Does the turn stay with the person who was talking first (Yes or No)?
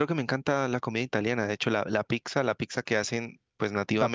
No